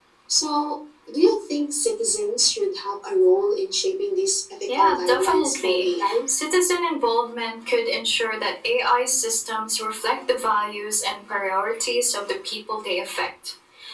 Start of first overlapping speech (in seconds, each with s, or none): 4.7 s